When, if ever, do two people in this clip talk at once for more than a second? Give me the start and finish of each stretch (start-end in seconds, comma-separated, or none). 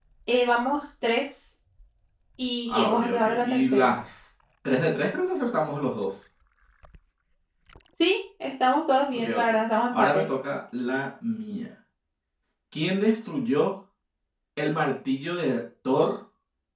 2.7-4.0